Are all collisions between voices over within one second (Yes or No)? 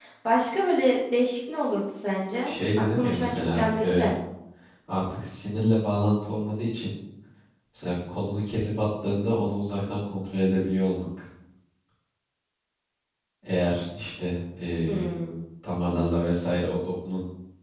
No